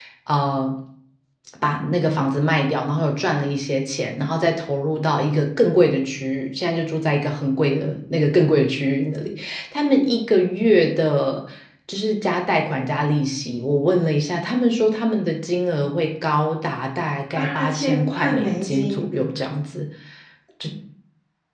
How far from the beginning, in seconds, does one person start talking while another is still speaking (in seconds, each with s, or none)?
17.4 s